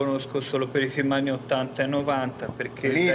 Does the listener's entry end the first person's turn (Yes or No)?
Yes